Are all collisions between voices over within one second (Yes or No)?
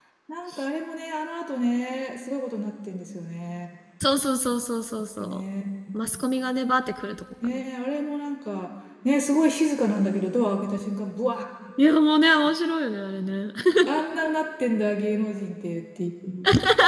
Yes